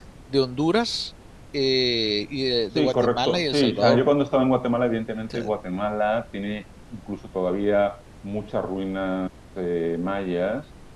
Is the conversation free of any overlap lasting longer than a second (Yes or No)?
No